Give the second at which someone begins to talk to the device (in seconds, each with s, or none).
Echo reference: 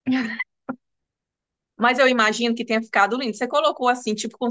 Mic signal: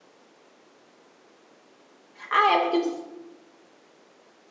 2.3 s